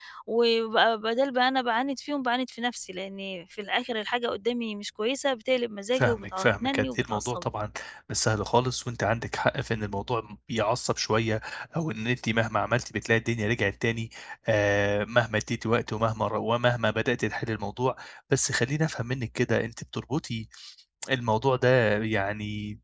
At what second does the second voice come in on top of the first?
5.9 s

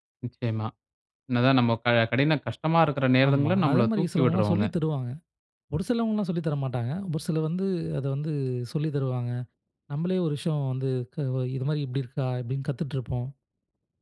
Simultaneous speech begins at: 3.2 s

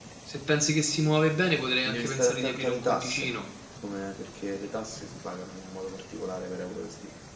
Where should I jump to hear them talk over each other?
1.8 s

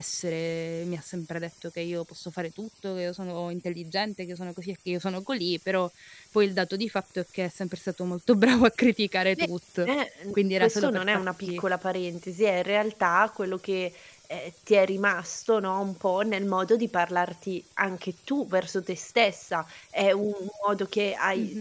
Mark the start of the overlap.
10.3 s

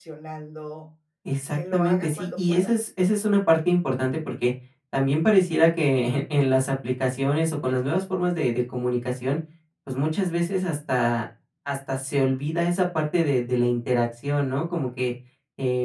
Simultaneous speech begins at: 1.5 s

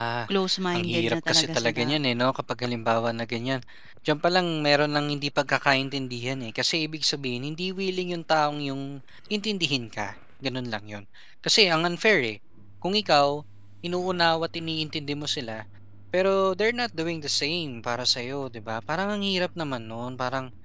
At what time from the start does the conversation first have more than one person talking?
0.7 s

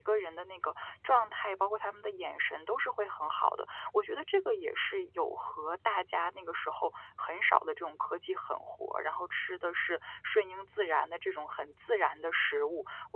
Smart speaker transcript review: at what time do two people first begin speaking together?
none

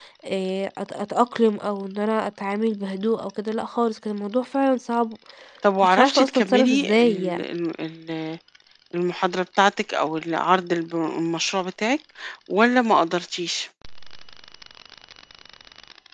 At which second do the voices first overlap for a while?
5.8 s

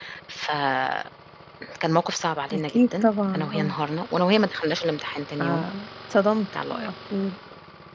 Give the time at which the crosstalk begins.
2.5 s

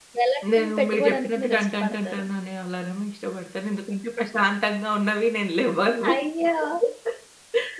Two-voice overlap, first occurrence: 0.5 s

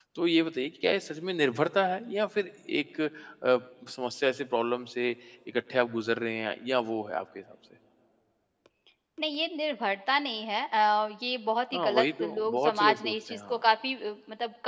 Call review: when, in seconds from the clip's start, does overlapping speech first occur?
11.7 s

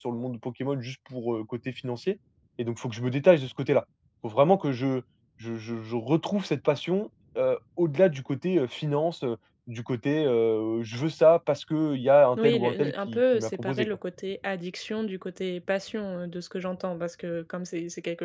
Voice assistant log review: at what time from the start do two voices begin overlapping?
12.4 s

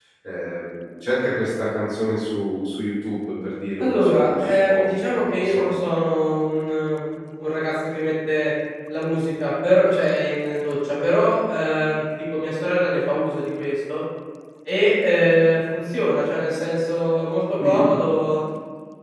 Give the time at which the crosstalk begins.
3.8 s

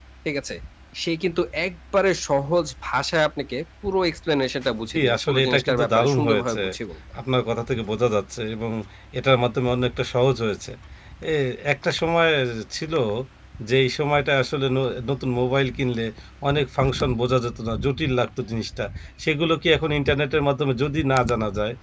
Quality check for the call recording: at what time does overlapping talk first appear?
4.9 s

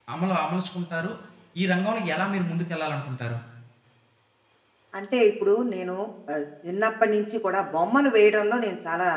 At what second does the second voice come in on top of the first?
none

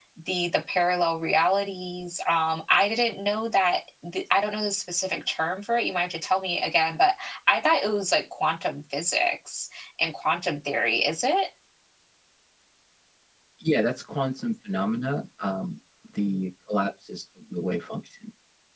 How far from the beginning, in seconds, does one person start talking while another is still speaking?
none

